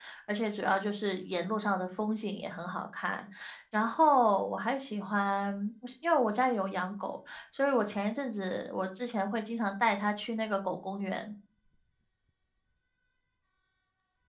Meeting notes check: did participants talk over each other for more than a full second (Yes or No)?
No